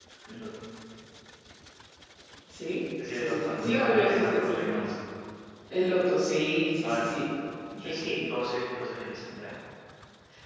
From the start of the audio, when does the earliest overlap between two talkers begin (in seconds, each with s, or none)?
3.1 s